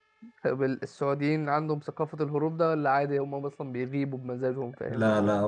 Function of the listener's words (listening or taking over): taking over